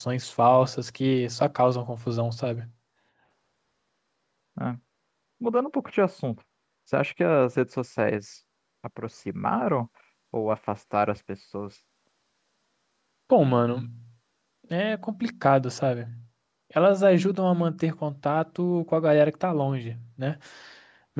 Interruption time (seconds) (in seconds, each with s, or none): none